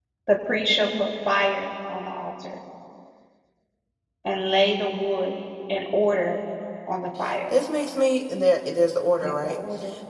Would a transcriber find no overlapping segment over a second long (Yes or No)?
Yes